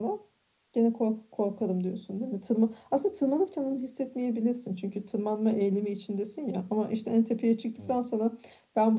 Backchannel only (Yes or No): Yes